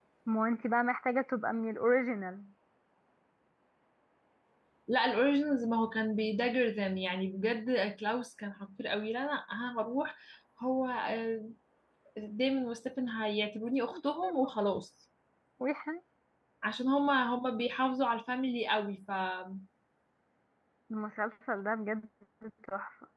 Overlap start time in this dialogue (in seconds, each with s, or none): none